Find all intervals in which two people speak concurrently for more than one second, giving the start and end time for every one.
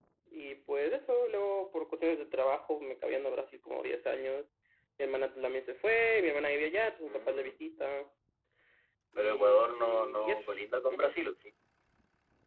9.2-10.5

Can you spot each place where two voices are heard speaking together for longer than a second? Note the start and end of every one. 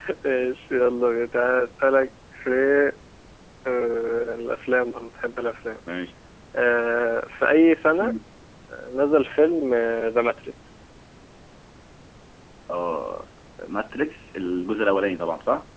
none

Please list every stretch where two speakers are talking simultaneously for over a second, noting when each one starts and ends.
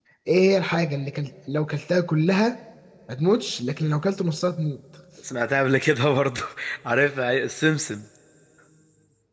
none

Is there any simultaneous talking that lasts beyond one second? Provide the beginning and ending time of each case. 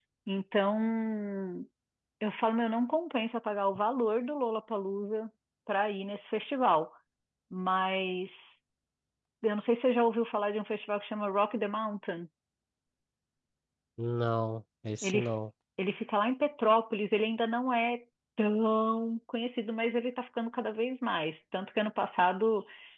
none

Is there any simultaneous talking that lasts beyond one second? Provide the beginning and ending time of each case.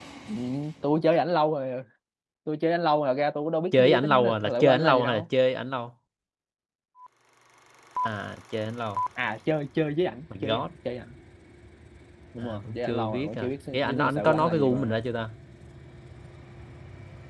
3.7-5.2, 12.4-15.0

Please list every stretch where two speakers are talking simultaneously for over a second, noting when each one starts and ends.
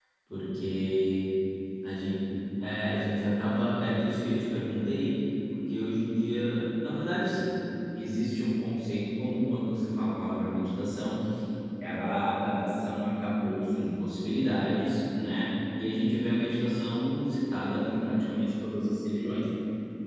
none

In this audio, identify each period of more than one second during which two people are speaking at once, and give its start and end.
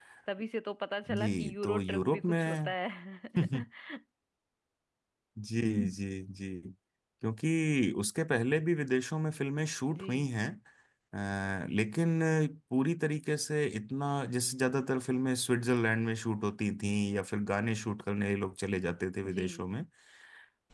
1.2-2.7

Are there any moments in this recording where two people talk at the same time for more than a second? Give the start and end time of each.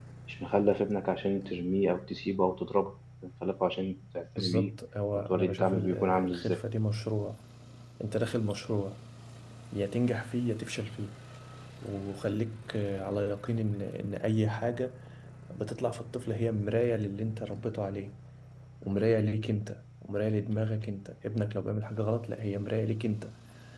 5.3-6.6

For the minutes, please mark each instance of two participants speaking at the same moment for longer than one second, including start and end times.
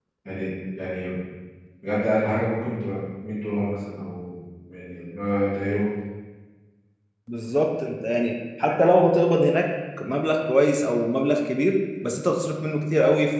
none

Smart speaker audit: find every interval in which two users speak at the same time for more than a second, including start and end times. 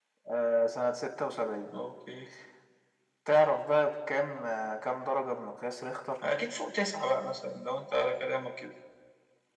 none

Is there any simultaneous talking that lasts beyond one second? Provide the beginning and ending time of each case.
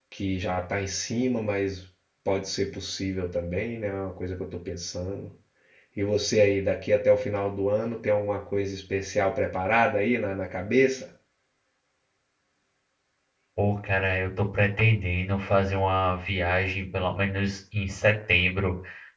none

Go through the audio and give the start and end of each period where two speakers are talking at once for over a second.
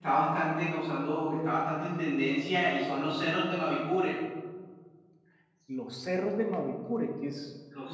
none

